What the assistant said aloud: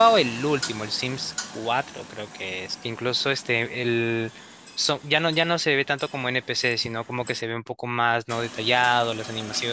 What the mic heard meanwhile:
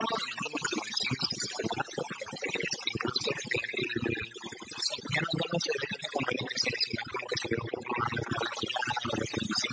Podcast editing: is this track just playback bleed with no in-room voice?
Yes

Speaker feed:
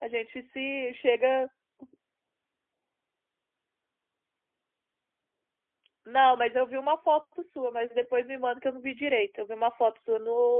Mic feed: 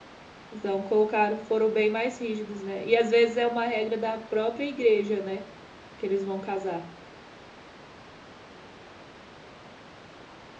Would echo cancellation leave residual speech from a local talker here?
Yes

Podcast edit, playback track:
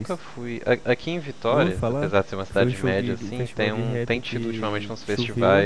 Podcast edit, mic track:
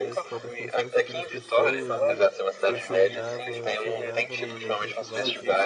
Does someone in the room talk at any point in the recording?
Yes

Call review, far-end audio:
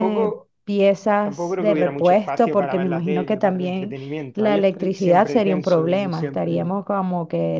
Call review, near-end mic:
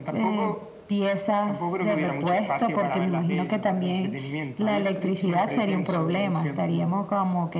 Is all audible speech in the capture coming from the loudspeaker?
Yes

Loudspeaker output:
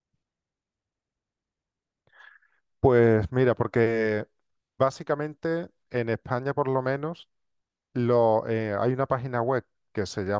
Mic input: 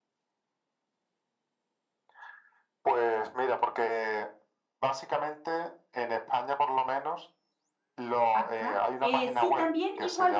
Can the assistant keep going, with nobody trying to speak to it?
No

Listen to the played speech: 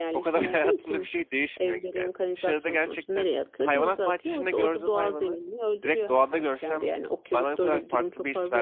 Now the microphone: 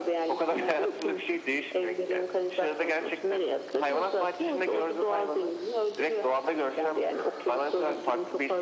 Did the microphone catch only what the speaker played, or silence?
Yes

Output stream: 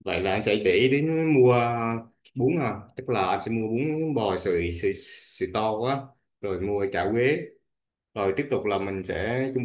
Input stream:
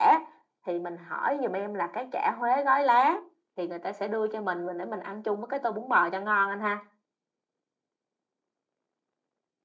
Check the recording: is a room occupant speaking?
Yes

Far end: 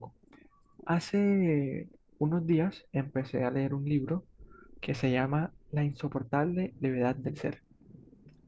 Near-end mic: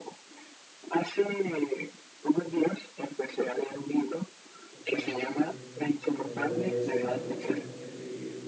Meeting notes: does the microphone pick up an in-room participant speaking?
Yes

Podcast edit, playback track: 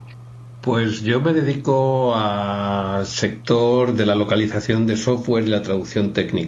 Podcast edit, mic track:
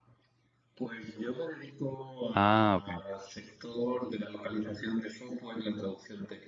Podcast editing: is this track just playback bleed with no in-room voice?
No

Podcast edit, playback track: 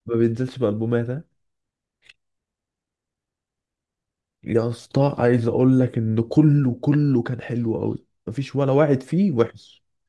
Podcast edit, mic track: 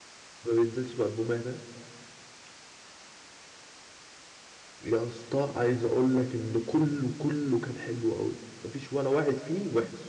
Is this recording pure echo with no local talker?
Yes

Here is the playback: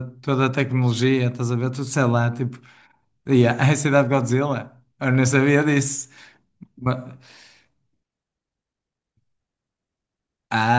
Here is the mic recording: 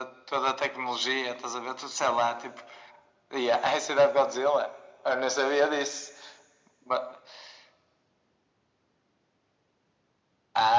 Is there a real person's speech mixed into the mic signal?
No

